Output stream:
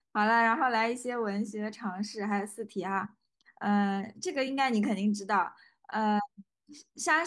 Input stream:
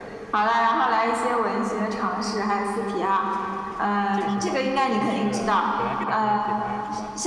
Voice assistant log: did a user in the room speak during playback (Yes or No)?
Yes